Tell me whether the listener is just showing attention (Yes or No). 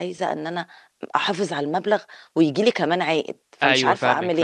No